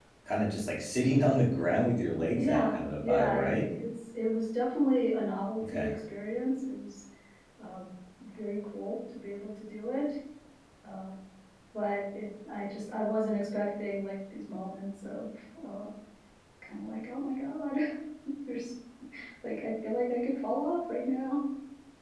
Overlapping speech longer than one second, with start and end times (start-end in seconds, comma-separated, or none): 2.4-3.7